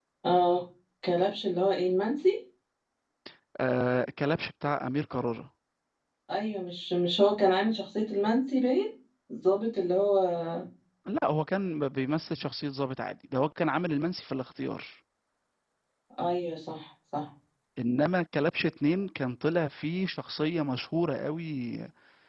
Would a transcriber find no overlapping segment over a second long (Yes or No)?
Yes